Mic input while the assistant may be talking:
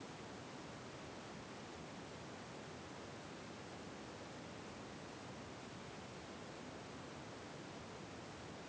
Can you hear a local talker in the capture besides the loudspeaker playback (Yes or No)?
No